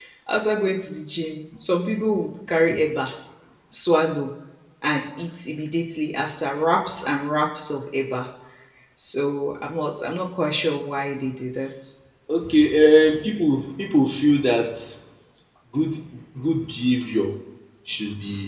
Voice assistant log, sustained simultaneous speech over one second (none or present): none